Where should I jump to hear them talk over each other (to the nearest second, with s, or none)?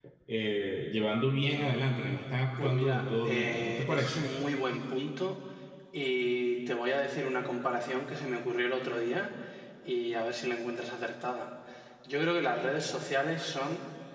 3 s